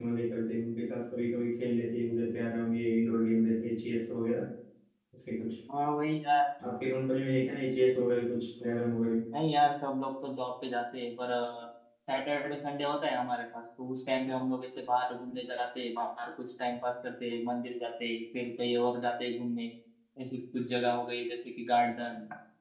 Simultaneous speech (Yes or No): No